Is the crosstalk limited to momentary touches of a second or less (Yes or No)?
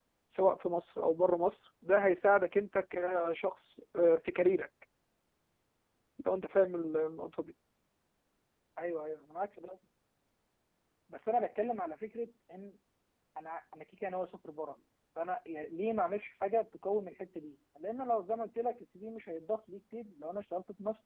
Yes